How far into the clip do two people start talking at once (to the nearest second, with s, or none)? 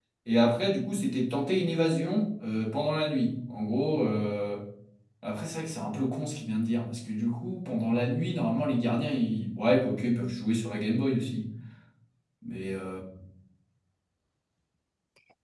none